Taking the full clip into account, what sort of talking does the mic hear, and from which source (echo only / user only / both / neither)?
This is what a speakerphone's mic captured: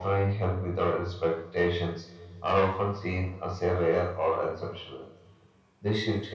echo only